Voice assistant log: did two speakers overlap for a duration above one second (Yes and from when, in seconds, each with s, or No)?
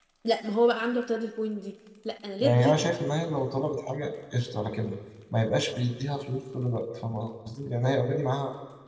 No